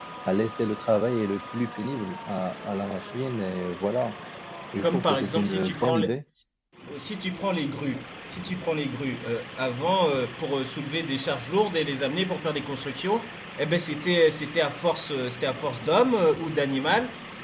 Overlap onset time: 5 s

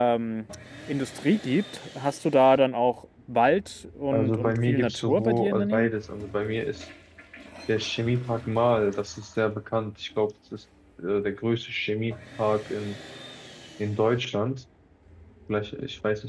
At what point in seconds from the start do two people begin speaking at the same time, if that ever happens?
4 s

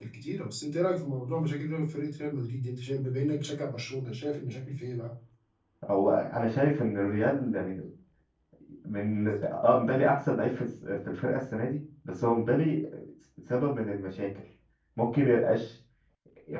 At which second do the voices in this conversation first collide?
none

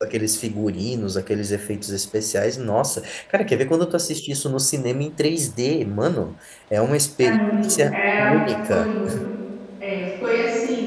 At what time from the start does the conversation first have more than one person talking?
7 s

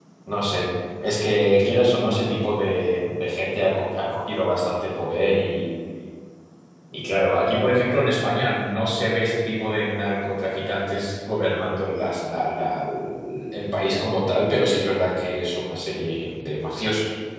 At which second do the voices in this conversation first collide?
none

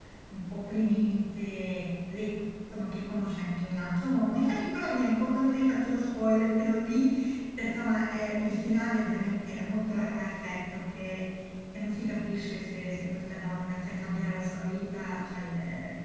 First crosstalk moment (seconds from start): none

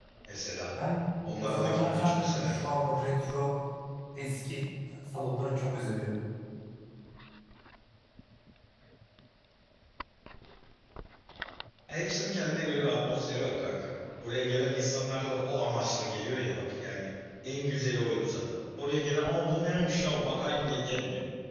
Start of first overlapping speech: 1 s

